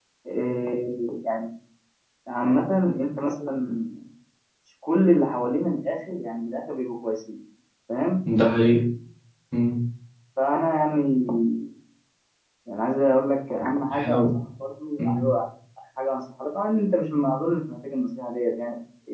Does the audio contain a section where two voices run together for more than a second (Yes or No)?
No